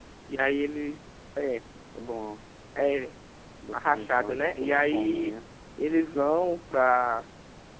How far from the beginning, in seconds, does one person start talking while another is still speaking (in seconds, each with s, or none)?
3.7 s